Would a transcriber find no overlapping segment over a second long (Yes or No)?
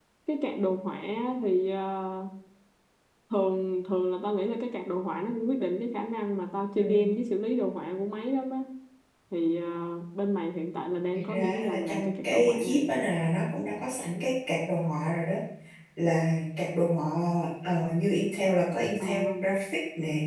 No